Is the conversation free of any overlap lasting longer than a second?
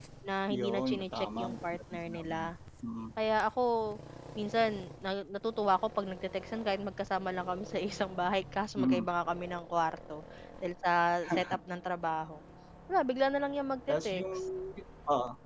No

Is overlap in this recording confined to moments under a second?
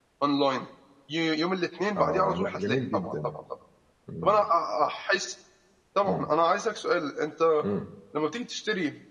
No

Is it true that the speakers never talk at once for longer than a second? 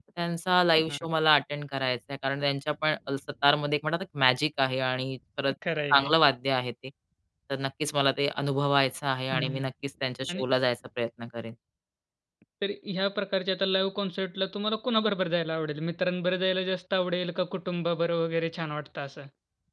Yes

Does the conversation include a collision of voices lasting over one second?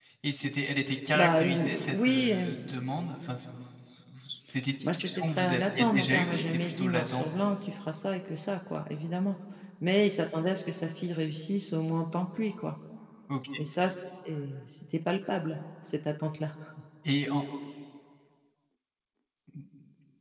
Yes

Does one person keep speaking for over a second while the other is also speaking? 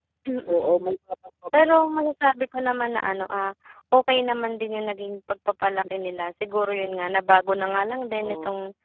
No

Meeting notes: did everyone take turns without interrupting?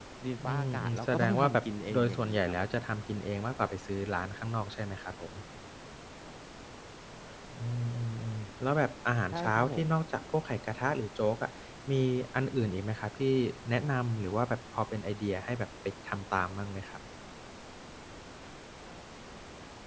No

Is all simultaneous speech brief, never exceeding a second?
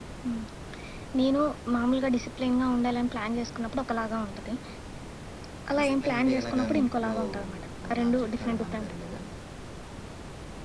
No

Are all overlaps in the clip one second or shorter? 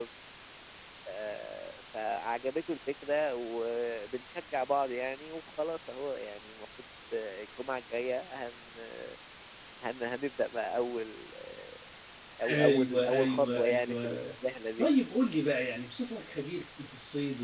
No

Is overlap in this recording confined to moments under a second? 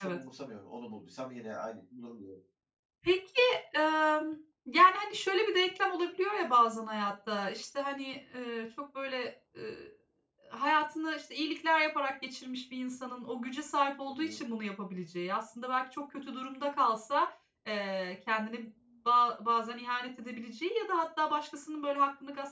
Yes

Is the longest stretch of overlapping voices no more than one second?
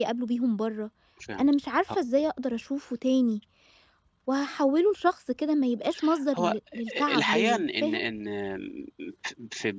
No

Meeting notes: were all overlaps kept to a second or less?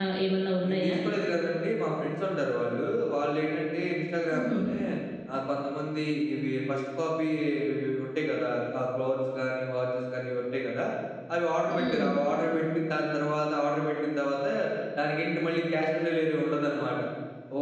Yes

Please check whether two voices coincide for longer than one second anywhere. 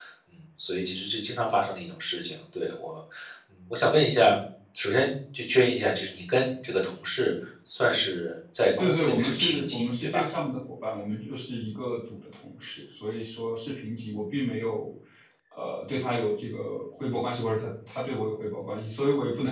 Yes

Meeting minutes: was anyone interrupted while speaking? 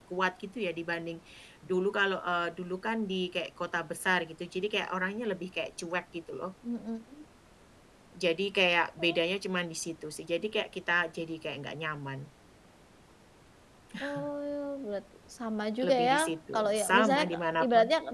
Yes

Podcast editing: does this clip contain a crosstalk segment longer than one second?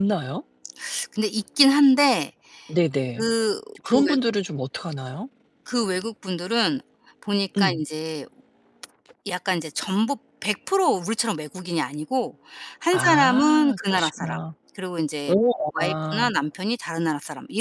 Yes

